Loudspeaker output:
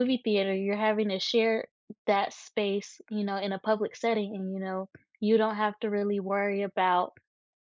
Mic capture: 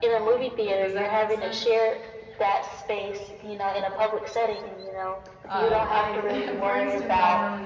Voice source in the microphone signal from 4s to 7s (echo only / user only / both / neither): both